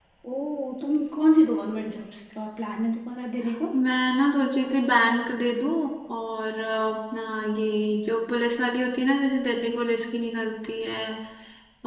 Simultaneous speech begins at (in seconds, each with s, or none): none